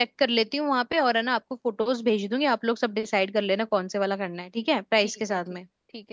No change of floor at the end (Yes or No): No